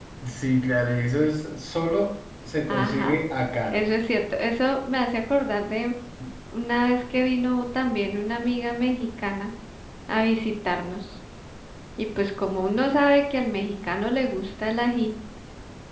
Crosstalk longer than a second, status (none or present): none